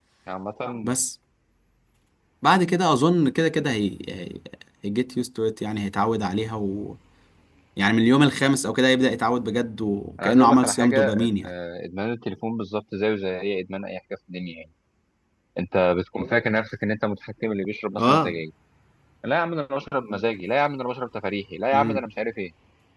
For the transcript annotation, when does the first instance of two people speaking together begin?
10 s

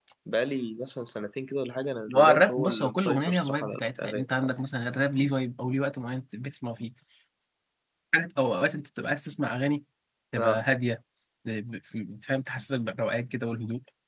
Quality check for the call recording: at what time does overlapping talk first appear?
2 s

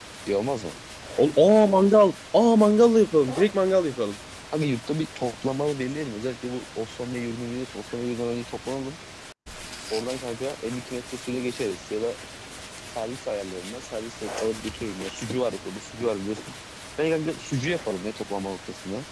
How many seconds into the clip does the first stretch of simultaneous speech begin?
none

